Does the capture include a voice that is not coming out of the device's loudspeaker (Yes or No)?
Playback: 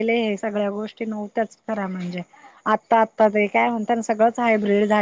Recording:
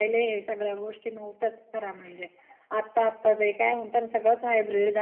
No